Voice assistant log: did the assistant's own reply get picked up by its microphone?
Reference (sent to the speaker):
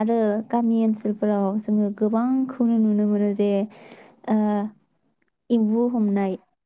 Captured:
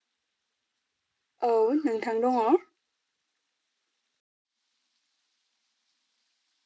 No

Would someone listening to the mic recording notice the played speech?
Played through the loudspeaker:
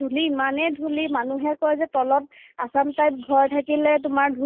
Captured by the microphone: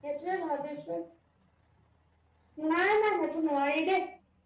No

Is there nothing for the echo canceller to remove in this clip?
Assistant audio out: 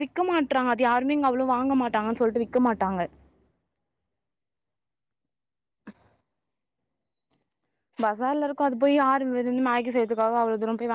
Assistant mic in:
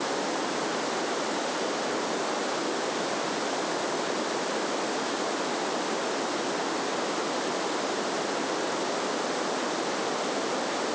Yes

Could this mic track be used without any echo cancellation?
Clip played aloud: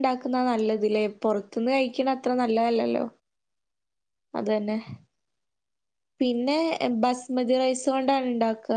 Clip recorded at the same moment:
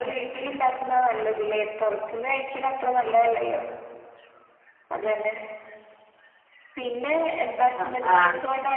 No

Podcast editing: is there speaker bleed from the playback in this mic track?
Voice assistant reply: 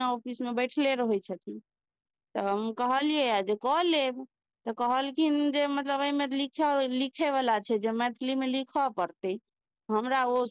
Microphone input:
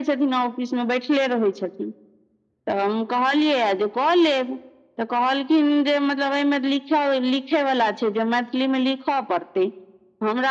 Yes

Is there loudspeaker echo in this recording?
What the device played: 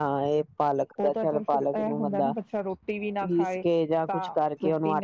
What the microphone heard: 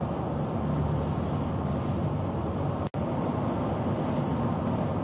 No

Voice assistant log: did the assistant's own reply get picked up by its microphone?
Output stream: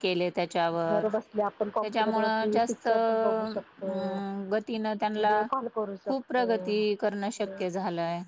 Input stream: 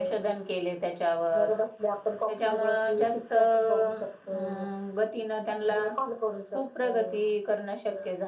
Yes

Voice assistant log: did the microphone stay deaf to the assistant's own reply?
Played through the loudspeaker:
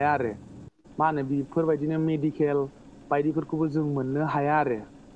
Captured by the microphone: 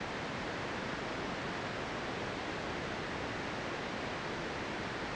Yes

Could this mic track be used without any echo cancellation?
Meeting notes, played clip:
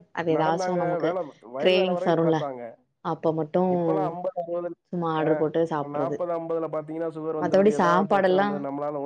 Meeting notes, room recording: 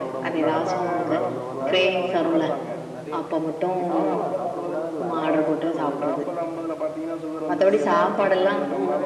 No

